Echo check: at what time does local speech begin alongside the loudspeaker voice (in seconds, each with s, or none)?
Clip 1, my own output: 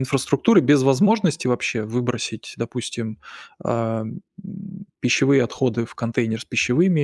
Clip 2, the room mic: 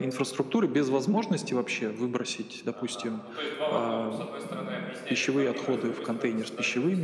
2.7 s